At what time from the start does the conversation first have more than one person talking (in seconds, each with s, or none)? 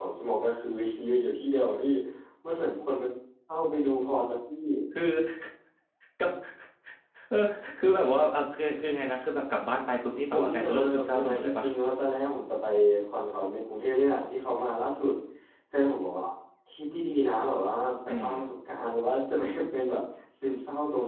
10.3 s